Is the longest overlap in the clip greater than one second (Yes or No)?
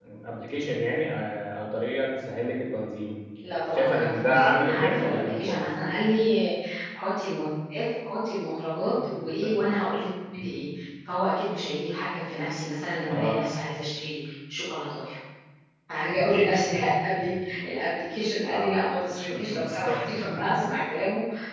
Yes